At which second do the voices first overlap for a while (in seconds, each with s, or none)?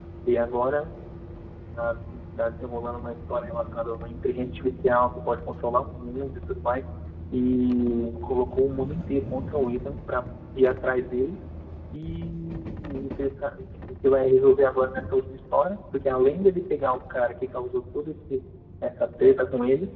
none